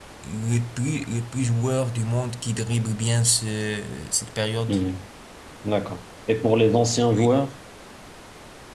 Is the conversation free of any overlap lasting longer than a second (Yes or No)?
Yes